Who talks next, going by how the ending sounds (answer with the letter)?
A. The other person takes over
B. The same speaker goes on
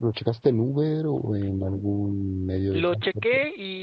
A